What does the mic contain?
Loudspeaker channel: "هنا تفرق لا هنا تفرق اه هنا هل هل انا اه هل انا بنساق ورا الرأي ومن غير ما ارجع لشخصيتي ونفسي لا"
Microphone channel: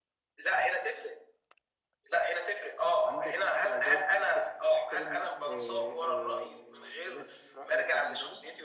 both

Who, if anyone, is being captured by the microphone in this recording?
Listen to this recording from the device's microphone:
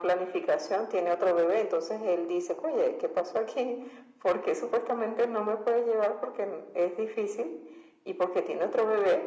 echo only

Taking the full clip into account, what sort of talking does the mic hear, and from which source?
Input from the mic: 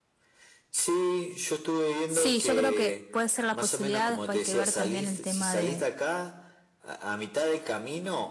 both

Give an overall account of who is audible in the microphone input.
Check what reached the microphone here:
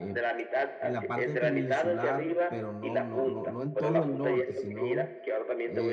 both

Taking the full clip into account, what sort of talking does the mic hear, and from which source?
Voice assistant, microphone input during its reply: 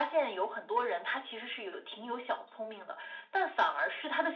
echo only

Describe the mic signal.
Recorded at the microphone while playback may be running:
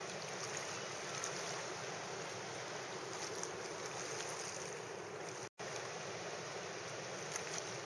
neither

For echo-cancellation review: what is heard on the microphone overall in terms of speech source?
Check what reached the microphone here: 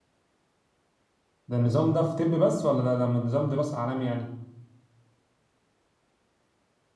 user only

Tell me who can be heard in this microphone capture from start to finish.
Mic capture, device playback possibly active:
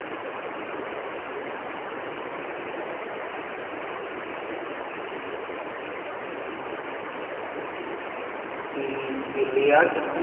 user only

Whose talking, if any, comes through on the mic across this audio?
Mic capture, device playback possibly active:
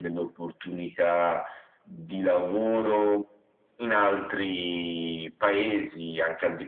echo only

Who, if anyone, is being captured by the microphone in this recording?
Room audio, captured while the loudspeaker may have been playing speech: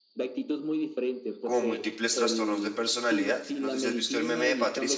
both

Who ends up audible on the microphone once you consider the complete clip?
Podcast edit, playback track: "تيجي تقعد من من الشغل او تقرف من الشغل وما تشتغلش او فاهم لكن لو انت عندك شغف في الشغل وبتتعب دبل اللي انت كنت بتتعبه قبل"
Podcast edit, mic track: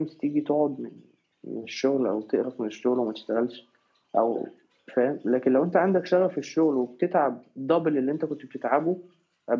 echo only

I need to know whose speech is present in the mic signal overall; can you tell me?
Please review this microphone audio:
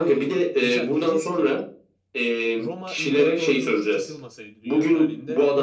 both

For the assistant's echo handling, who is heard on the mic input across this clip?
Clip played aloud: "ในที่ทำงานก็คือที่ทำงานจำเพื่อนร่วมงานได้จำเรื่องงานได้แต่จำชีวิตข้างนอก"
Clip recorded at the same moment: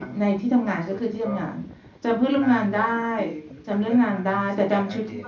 both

